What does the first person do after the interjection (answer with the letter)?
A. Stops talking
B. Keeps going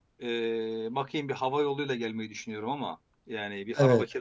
B